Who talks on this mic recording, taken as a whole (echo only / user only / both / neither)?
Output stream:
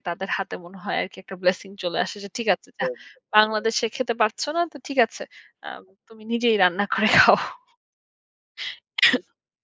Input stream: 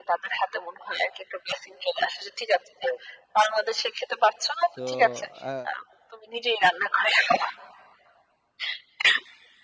both